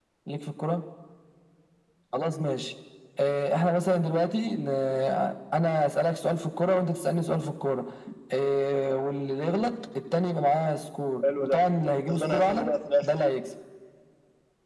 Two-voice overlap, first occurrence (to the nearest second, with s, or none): 11 s